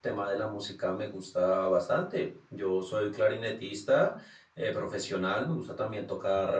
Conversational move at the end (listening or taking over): listening